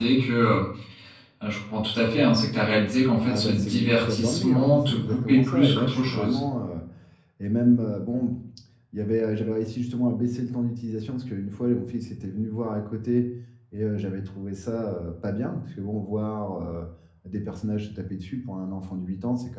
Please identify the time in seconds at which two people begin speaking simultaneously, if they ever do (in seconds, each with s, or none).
3.3 s